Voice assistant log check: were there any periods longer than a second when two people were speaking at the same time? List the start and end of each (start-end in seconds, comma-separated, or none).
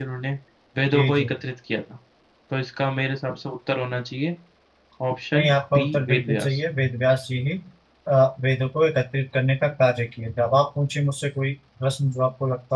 5.3-6.6